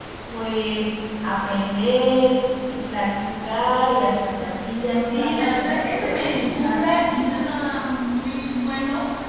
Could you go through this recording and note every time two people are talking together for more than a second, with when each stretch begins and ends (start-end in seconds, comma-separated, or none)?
5.1-6.8